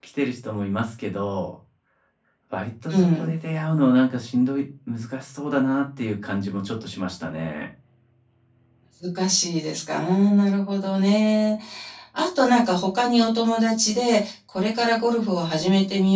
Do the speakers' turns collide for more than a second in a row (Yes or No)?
No